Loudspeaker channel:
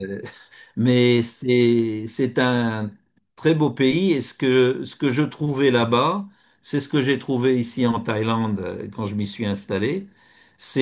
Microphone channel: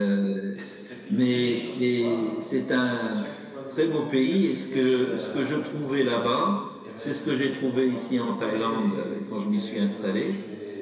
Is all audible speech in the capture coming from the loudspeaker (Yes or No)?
No